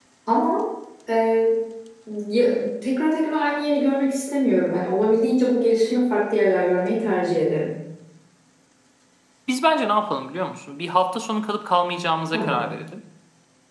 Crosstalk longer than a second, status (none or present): none